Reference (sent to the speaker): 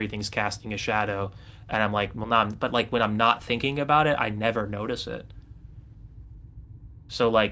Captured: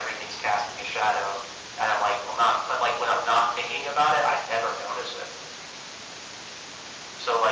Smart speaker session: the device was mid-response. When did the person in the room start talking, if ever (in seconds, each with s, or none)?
none